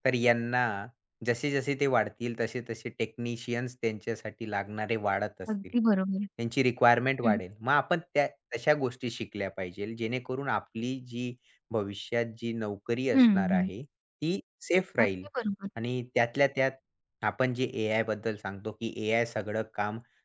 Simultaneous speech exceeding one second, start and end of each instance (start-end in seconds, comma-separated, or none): none